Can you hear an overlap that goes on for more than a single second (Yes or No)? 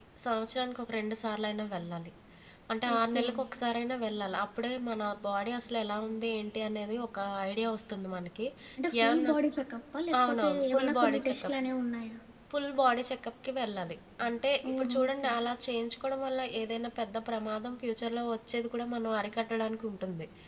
Yes